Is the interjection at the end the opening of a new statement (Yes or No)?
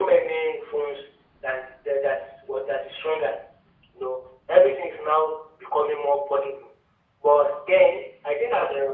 No